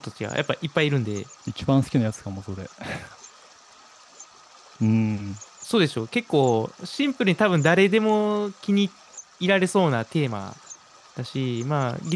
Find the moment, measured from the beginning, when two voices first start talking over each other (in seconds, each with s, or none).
none